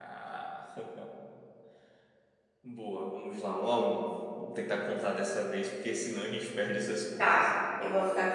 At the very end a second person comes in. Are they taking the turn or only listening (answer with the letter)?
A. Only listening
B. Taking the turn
B